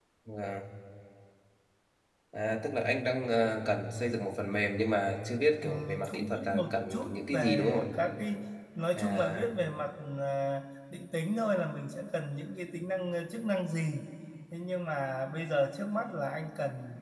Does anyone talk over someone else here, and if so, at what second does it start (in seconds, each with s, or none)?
5.6 s